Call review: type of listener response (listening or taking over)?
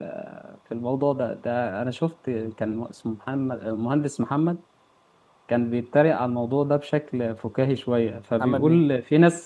listening